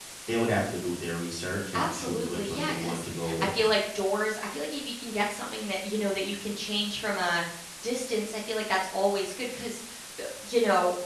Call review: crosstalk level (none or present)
present